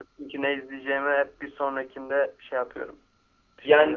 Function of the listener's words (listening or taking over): taking over